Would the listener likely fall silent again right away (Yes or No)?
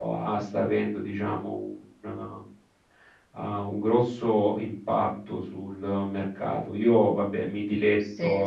Yes